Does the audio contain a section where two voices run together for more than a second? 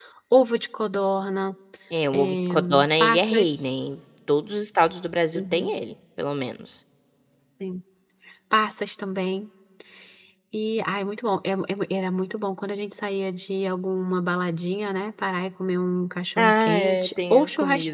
Yes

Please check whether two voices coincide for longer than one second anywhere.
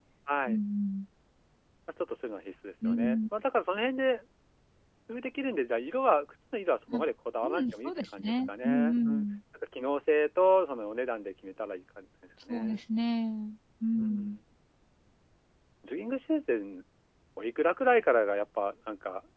Yes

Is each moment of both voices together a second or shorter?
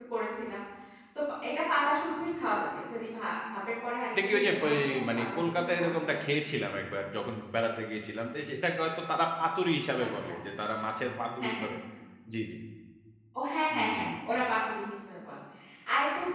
No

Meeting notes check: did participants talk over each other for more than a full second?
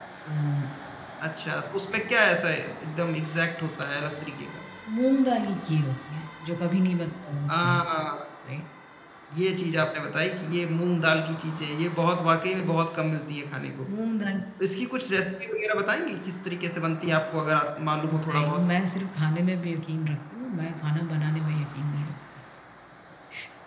No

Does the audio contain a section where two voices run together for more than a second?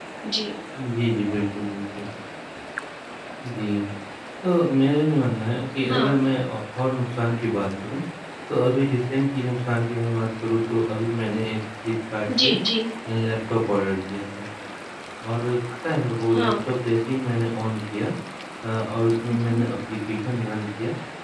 No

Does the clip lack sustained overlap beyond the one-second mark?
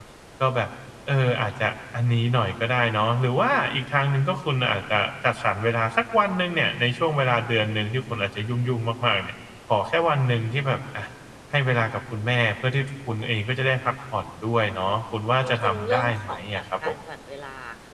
No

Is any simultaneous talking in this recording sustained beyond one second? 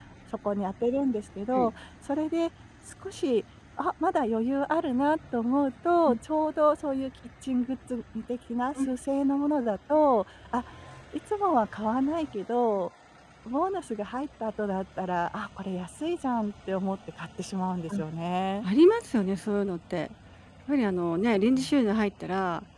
No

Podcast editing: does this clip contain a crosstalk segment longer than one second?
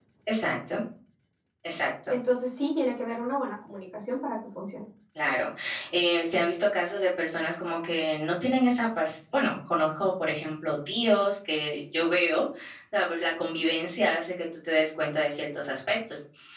No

